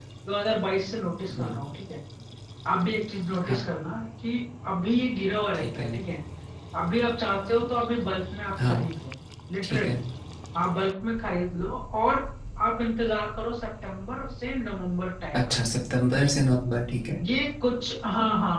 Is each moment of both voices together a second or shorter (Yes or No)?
Yes